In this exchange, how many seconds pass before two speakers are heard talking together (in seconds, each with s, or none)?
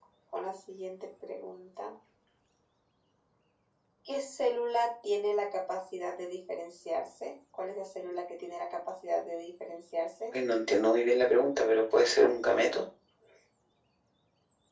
none